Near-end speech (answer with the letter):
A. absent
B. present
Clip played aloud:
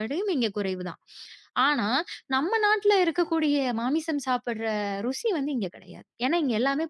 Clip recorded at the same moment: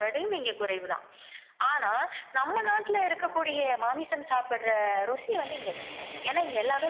A